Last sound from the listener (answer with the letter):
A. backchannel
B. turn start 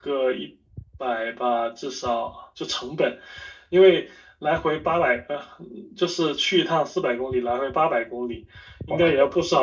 A